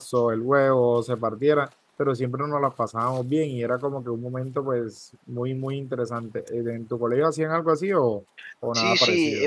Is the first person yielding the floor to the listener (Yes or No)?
Yes